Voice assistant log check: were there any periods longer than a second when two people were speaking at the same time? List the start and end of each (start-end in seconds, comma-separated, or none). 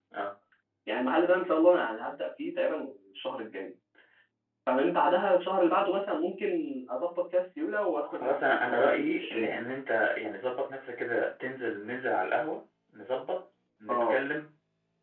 8.1-9.6